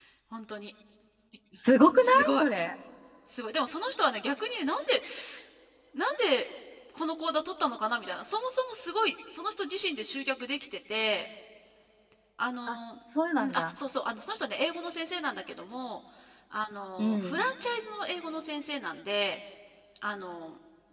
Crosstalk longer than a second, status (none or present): none